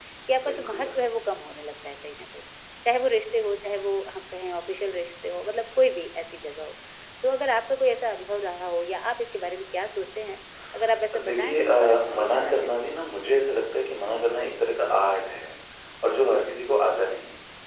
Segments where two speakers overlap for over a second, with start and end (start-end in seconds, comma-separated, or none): 11.2-12.9